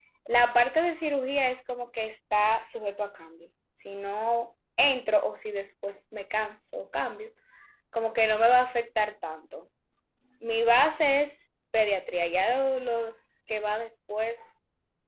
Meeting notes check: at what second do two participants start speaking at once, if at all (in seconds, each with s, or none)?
none